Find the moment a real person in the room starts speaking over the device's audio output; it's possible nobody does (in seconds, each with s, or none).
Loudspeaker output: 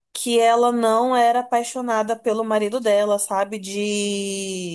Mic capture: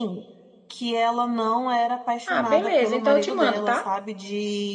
2.2 s